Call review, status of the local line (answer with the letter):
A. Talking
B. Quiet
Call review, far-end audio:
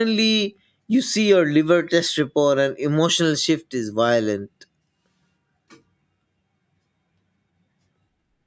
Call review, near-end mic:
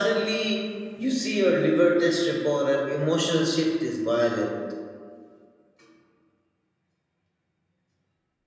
B